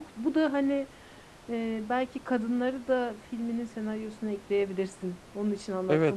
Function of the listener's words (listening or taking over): taking over